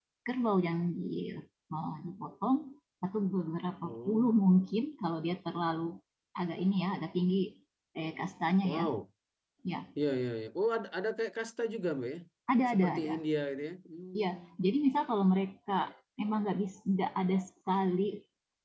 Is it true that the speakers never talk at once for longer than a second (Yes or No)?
Yes